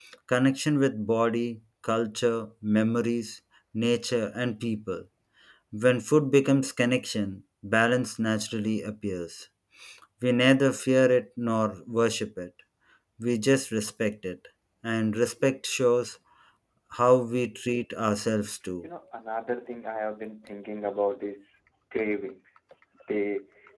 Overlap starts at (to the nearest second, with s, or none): none